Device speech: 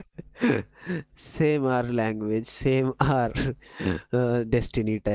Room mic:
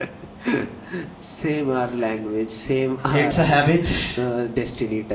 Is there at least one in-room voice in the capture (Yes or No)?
Yes